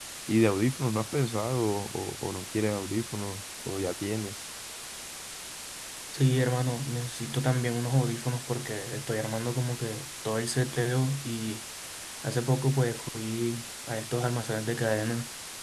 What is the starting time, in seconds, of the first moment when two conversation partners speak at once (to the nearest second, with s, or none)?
none